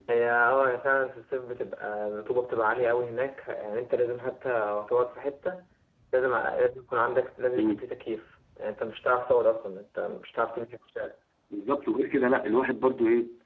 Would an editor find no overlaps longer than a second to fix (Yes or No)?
Yes